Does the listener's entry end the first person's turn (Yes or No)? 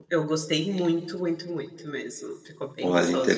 Yes